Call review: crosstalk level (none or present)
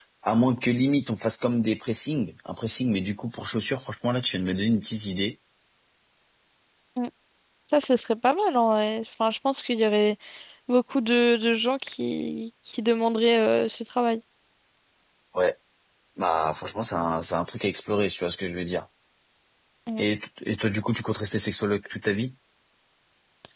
none